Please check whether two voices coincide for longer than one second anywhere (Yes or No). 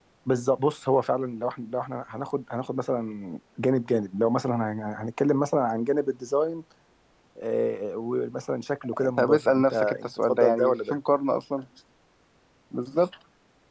Yes